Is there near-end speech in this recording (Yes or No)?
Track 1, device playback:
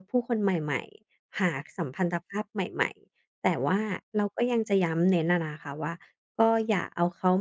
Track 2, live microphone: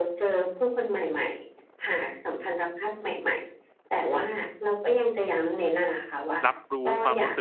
Yes